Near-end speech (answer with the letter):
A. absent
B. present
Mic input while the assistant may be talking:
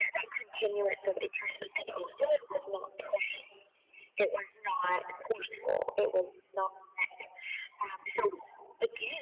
A